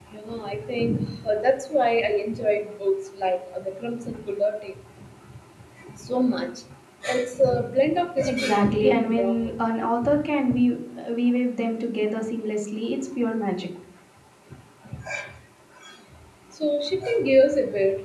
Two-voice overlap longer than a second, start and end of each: 8.3-9.5

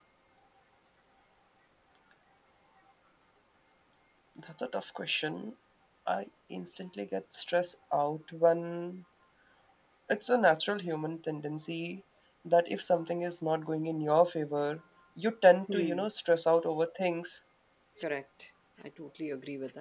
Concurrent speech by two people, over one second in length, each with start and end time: none

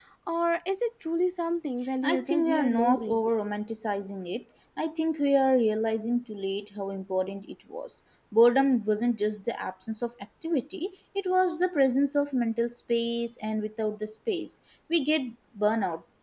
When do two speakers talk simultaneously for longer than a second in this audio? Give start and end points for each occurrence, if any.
2.0-3.2

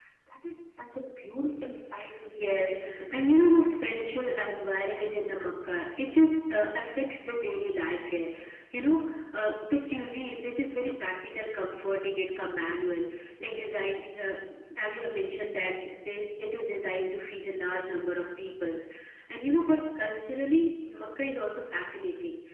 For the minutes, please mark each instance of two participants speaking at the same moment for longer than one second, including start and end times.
2.3-3.7

